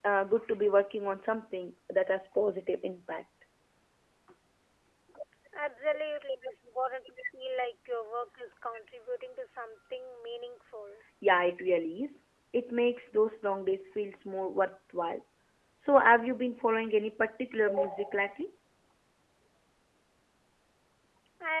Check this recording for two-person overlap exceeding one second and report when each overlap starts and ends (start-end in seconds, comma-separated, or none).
none